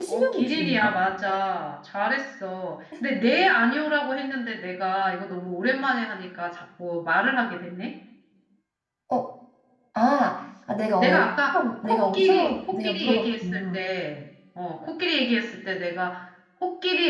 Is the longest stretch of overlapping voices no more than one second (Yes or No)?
No